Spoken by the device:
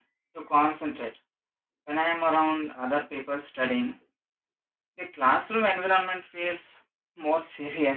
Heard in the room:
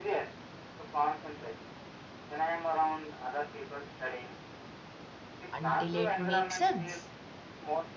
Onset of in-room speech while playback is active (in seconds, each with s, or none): 5.5 s